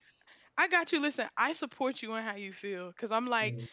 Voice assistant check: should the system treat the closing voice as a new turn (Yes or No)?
No